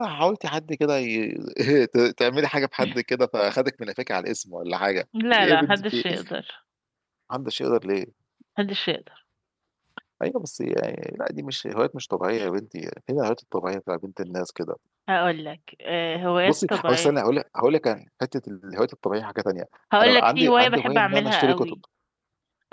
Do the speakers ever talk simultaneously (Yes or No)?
Yes